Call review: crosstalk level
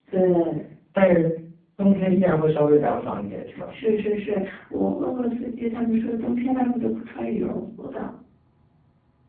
none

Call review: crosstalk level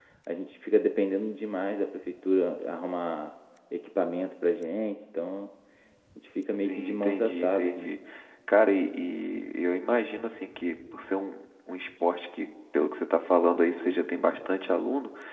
present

